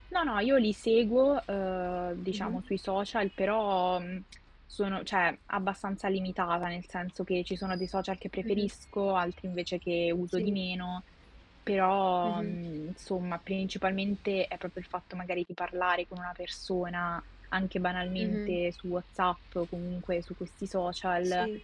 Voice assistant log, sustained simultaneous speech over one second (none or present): none